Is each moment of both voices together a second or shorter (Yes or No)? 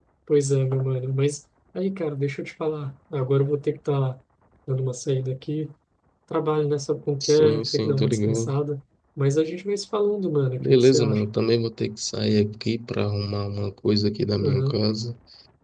No